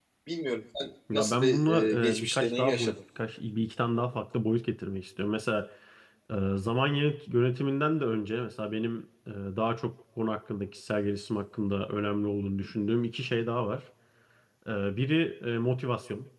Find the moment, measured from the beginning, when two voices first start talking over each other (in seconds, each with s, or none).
1.1 s